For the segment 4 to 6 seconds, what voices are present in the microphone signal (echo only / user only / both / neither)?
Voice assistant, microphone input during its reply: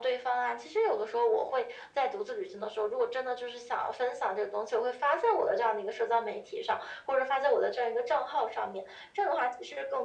echo only